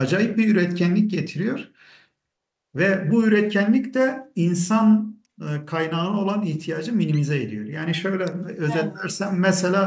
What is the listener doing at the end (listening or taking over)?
listening